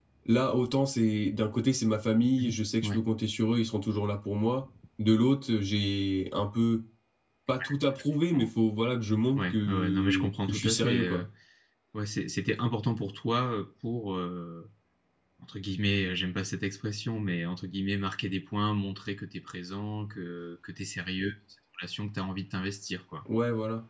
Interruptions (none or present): present